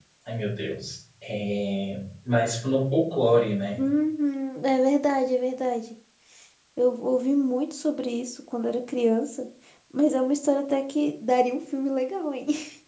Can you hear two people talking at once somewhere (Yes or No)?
No